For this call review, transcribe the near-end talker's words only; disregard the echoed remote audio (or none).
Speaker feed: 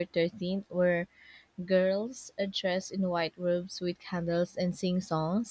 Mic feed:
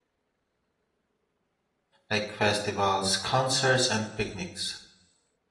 Like festivals, concerts, and picnics.